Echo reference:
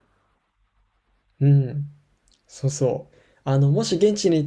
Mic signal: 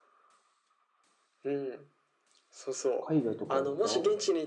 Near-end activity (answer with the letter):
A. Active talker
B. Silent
A